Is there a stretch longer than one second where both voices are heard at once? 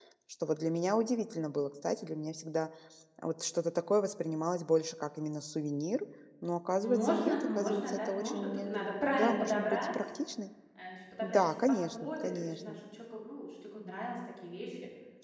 Yes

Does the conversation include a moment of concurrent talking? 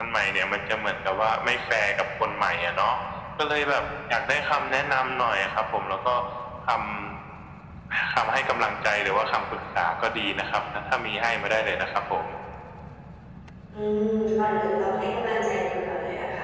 No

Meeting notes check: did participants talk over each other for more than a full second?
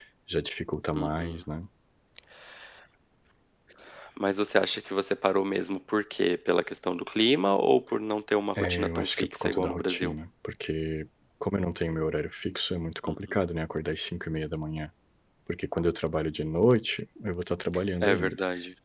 Yes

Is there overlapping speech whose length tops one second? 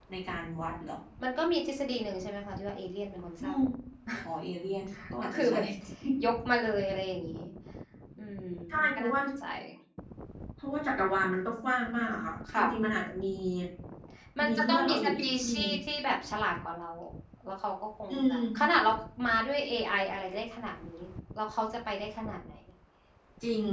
Yes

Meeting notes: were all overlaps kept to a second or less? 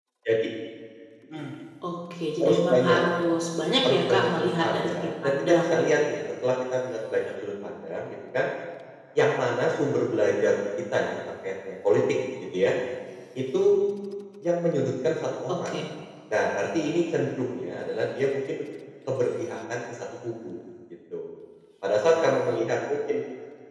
No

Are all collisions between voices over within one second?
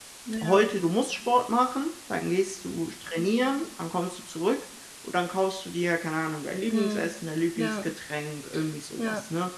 Yes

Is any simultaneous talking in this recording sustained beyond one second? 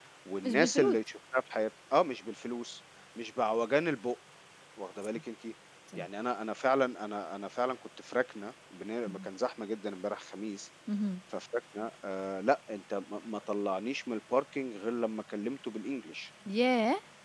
No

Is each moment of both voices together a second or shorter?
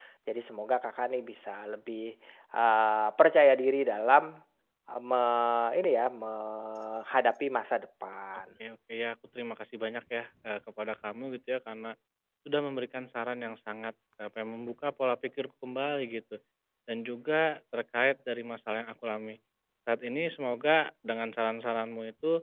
Yes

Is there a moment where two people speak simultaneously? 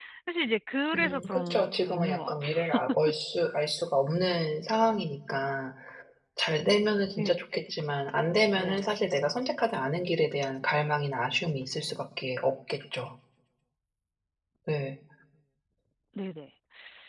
Yes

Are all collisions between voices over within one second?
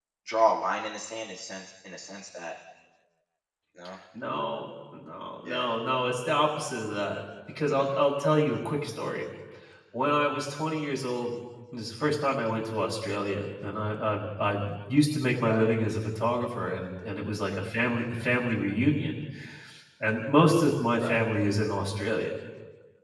Yes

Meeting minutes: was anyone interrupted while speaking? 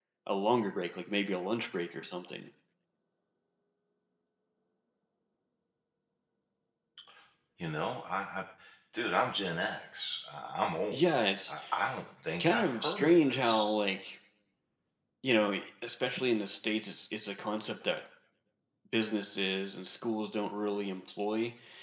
Yes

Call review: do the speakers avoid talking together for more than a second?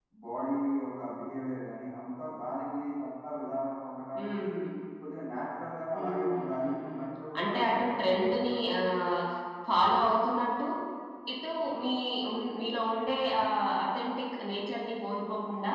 No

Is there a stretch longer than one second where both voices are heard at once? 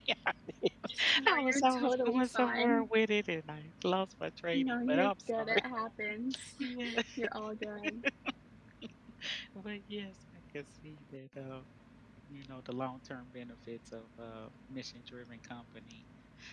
Yes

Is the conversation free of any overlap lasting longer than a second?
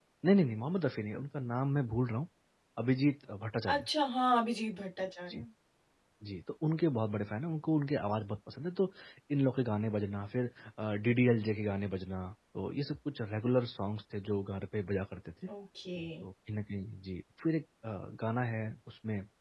Yes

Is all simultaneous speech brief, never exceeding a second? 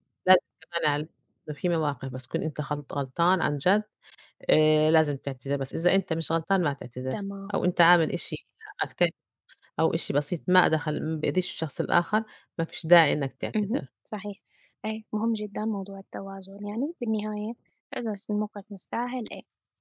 Yes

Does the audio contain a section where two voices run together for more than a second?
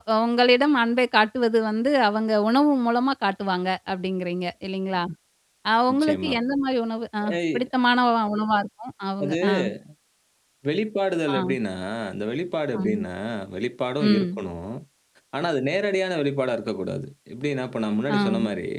No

